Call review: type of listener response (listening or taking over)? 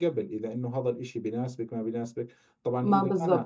listening